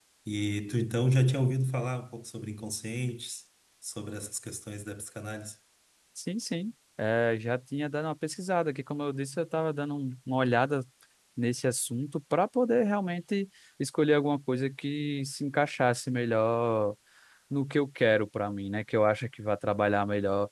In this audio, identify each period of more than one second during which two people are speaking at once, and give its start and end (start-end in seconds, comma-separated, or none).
none